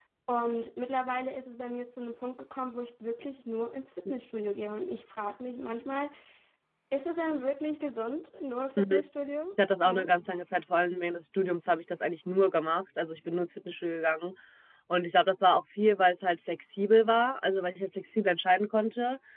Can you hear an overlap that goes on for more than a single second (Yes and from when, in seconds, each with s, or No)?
No